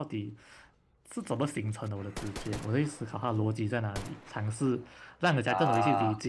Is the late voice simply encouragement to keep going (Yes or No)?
Yes